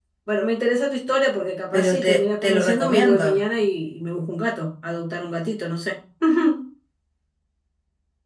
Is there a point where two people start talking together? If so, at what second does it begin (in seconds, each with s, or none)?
1.7 s